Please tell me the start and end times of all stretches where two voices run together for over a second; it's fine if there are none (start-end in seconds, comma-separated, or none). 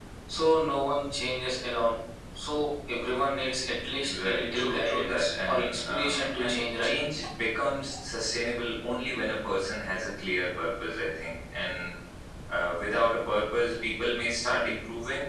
4.2-6.9